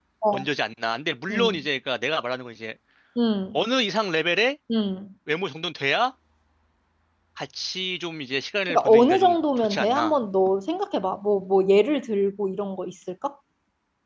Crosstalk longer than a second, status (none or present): present